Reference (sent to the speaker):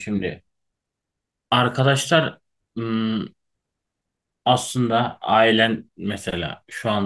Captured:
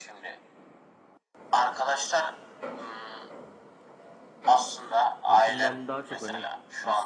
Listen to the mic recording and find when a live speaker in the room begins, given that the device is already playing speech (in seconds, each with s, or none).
5.3 s